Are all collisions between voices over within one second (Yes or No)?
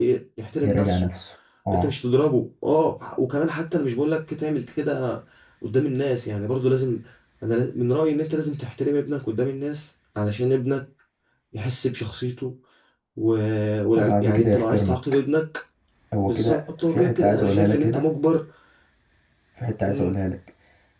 No